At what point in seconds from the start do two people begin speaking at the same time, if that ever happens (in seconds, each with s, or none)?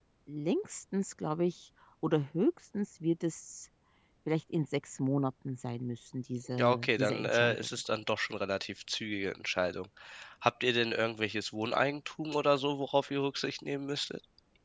6.5 s